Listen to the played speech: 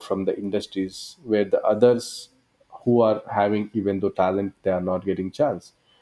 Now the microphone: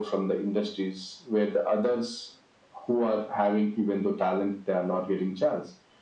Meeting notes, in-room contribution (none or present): none